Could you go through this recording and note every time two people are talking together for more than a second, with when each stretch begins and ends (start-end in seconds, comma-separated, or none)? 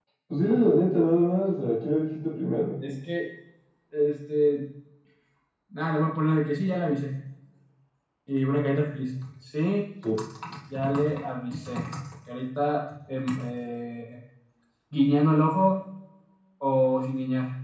none